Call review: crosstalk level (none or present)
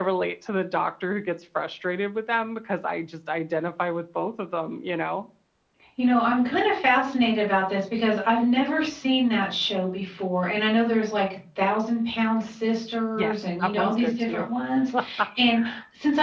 present